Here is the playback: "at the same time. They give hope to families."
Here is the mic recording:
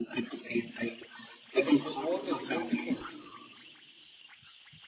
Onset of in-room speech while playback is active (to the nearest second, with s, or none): 2 s